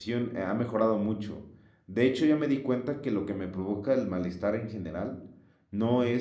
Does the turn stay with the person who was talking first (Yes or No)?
Yes